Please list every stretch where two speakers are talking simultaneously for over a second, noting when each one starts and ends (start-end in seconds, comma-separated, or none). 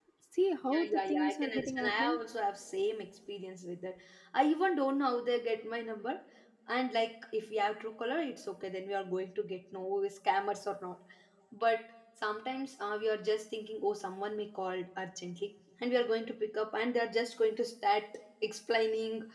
0.8-2.2